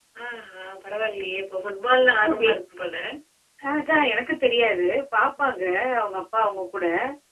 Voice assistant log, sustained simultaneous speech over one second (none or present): none